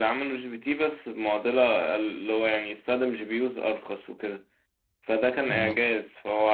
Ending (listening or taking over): listening